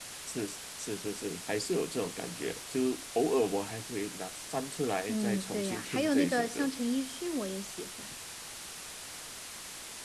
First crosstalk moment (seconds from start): 5 s

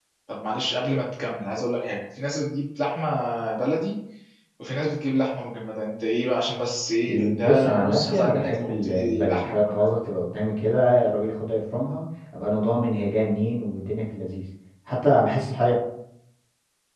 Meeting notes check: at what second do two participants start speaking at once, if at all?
7 s

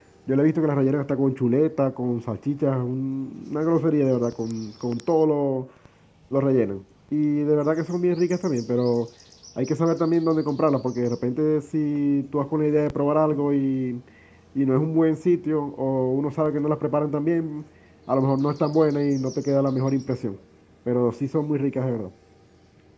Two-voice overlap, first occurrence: none

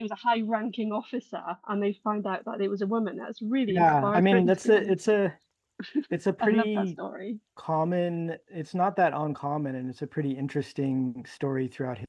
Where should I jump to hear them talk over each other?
4 s

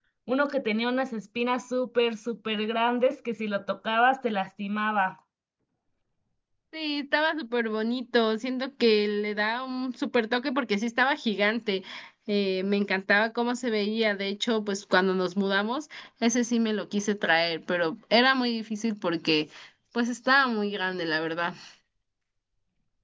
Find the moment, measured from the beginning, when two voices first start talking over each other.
none

